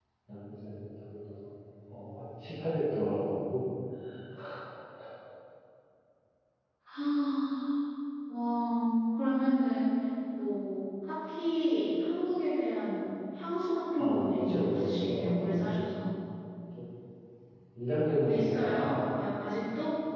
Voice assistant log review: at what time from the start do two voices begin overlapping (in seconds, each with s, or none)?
14.0 s